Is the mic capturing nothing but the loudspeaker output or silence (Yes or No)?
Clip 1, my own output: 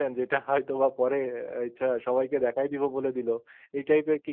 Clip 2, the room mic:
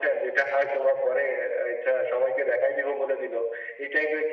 Yes